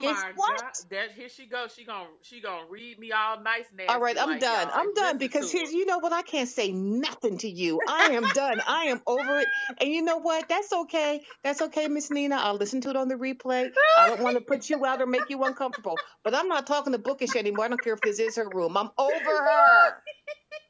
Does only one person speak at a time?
No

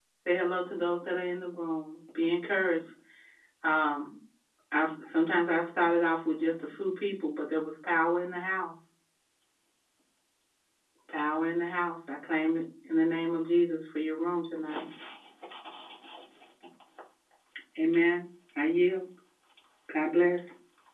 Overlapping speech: No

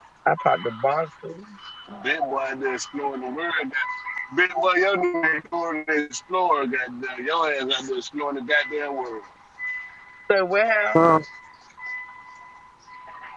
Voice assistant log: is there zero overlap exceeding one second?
Yes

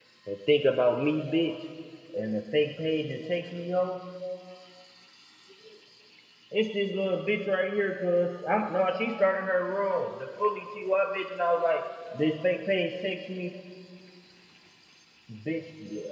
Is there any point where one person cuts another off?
No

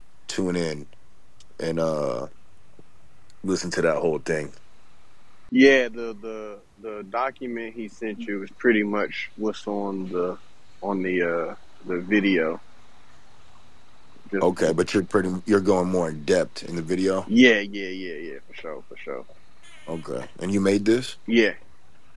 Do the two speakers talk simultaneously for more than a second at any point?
No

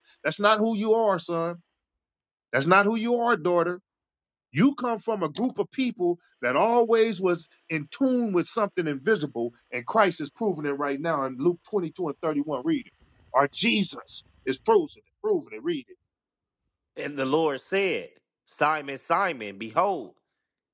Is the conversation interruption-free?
Yes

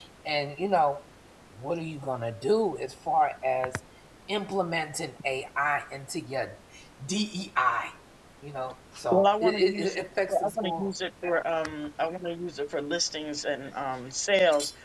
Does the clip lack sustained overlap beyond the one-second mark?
No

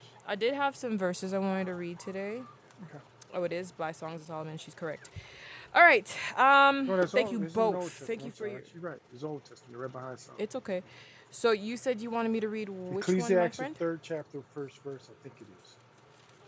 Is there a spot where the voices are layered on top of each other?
Yes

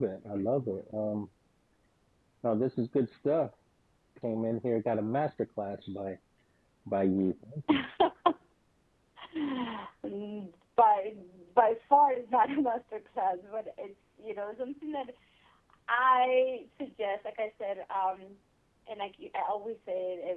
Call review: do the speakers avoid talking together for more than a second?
Yes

